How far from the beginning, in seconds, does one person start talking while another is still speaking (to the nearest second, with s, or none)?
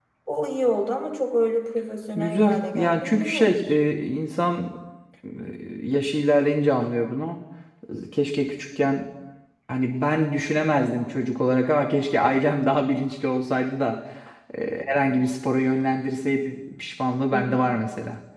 2 s